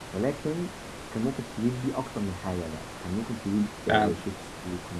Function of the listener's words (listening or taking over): listening